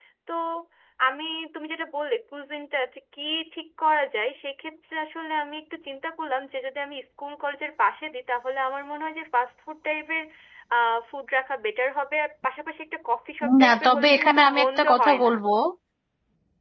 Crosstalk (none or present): present